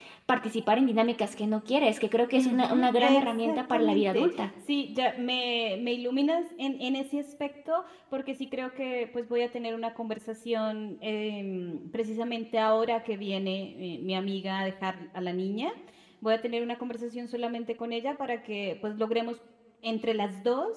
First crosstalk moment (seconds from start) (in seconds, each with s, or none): 2.3 s